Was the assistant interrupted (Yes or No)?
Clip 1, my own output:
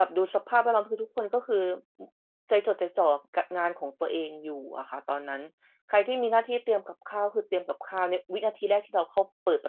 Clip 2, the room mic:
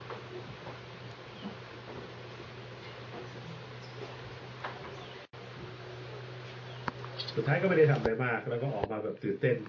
Yes